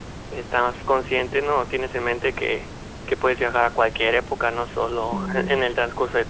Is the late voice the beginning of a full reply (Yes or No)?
No